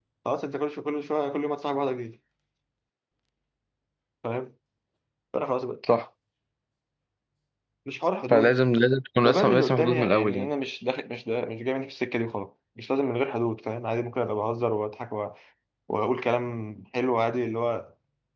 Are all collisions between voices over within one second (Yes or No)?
No